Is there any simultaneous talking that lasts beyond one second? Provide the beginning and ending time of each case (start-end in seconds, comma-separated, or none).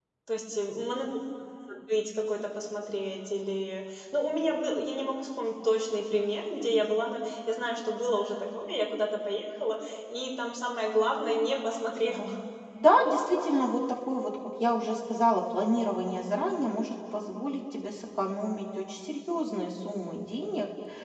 none